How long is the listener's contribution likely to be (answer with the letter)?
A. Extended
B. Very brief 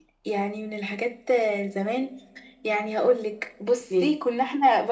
B